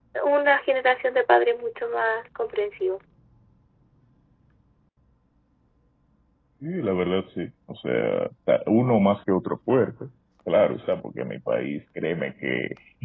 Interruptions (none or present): none